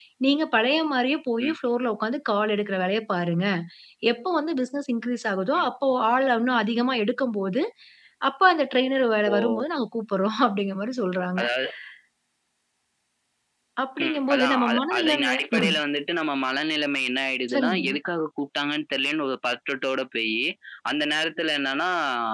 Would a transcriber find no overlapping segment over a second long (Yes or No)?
No